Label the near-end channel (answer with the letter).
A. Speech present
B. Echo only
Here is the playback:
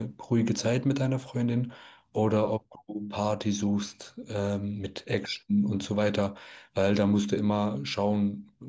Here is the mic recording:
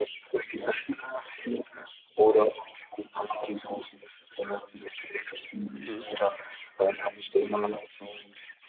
A